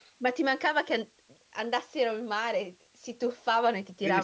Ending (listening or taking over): taking over